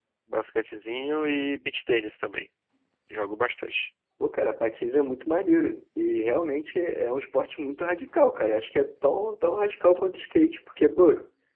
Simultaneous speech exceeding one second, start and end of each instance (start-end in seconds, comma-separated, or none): none